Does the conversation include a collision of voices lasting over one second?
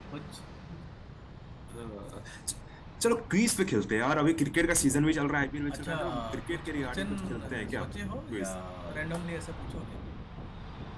Yes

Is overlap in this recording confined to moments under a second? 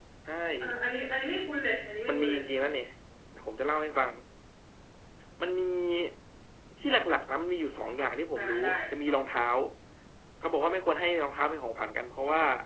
Yes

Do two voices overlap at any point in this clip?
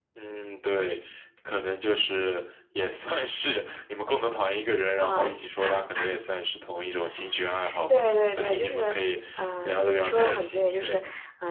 Yes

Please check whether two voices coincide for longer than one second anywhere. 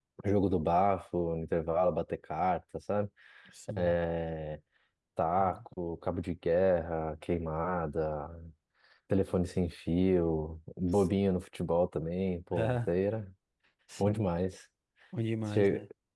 No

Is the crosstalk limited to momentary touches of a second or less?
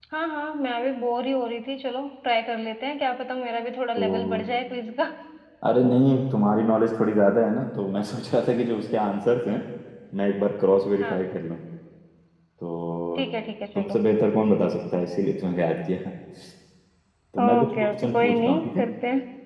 No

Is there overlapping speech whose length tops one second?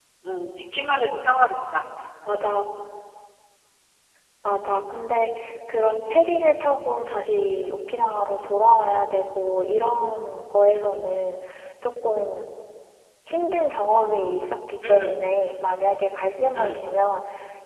No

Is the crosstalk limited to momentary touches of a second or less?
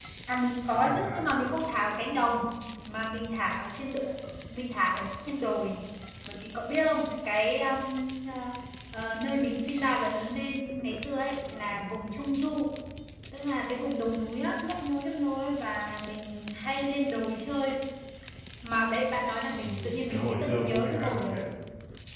No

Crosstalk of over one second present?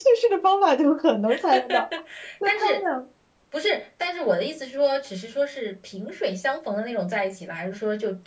No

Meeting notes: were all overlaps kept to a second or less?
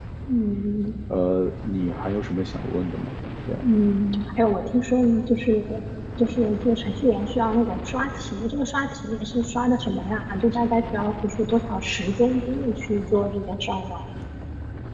Yes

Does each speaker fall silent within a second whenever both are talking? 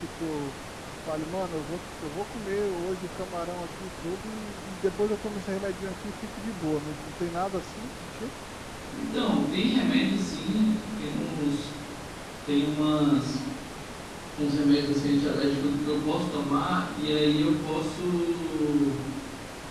Yes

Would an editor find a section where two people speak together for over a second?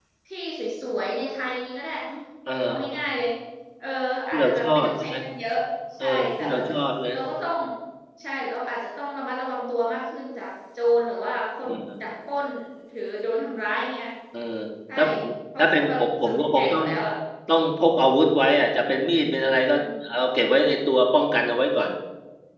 Yes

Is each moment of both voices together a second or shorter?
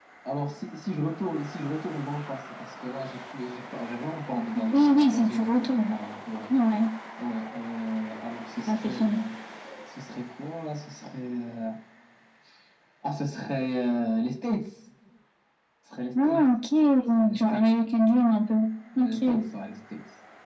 No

